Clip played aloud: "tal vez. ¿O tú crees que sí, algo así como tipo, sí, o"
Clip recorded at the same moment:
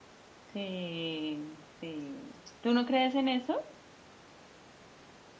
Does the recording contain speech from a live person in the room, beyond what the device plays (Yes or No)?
Yes